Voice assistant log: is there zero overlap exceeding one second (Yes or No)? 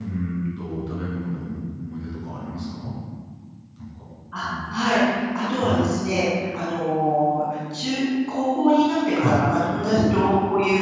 Yes